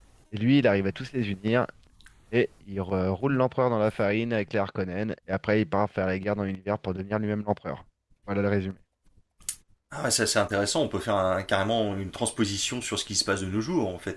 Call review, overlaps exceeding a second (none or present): none